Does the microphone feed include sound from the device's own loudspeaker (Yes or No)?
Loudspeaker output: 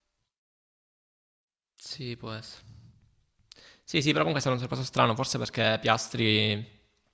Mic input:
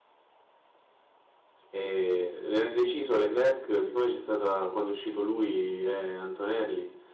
No